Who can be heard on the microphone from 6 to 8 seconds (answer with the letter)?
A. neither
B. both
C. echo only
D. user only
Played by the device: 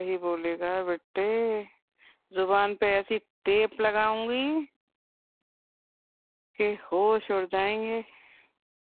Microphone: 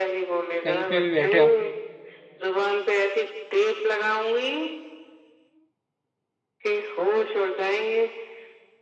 C